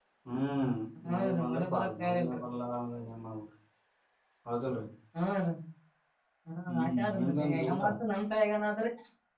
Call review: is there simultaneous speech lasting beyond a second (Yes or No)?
Yes